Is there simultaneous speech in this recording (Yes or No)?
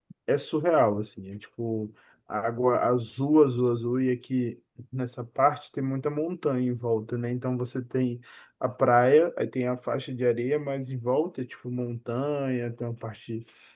No